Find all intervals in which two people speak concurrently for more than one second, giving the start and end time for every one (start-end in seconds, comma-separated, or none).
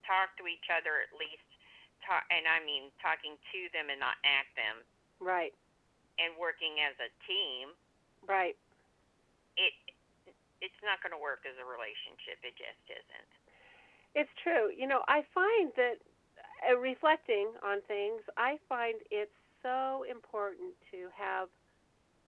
none